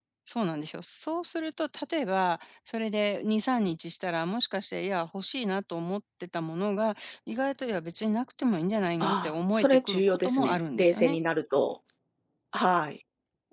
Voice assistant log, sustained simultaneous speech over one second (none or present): present